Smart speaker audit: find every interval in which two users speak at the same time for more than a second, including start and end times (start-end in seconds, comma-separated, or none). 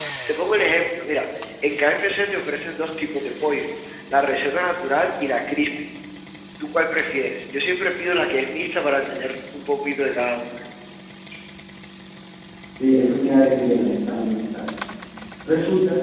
none